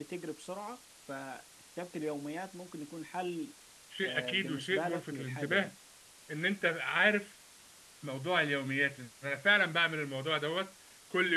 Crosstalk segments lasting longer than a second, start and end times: 4.0-5.7

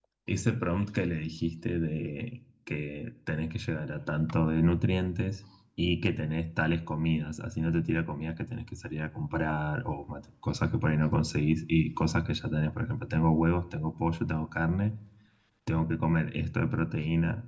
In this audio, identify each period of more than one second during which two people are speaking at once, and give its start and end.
none

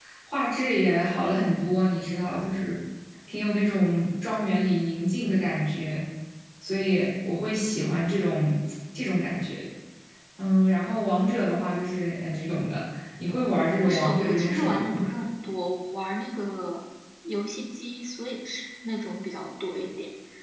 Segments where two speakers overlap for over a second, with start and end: 13.8-15.1

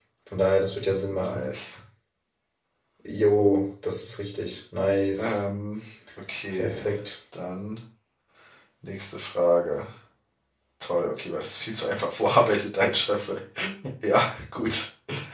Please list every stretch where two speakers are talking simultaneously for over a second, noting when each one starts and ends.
none

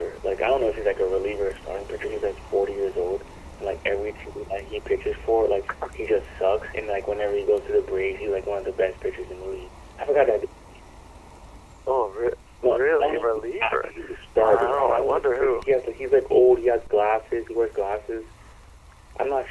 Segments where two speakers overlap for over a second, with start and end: 12.6-13.9, 14.4-15.6

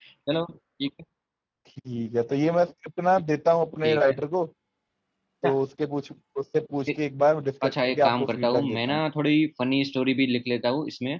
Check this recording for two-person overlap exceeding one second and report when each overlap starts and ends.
7.6-9.0

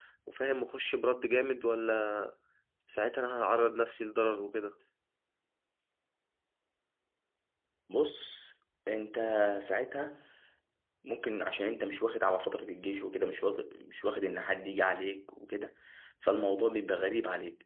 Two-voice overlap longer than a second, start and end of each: none

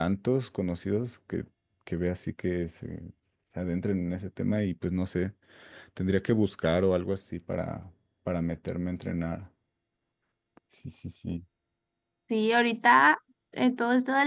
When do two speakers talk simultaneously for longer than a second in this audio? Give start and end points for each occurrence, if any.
none

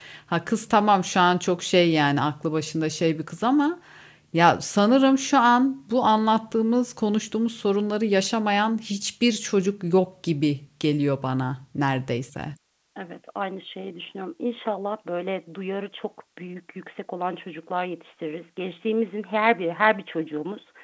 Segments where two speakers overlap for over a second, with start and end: none

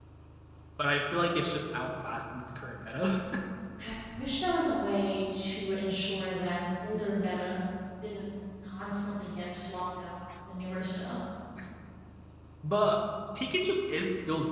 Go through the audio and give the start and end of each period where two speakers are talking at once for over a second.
none

